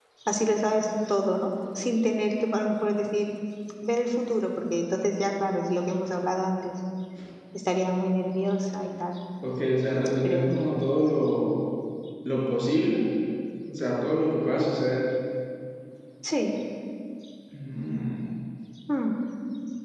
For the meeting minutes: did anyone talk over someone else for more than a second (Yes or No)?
No